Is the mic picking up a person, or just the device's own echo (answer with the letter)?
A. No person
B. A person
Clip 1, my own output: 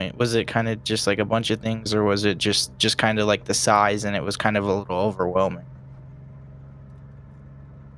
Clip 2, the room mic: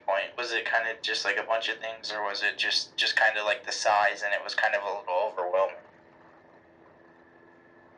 A